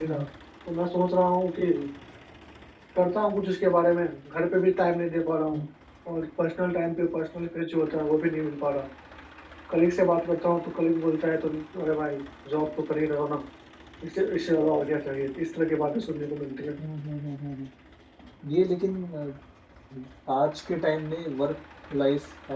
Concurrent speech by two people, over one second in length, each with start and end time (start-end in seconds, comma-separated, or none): none